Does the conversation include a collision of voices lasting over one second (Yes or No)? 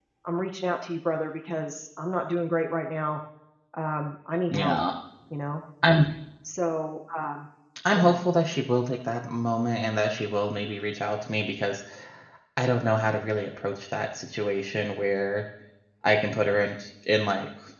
No